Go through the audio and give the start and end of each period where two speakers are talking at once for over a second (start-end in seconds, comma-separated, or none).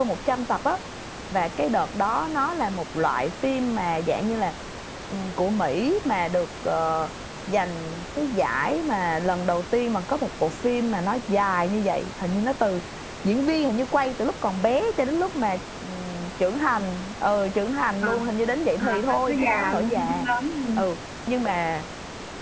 18.8-20.3